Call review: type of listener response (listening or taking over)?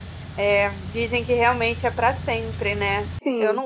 listening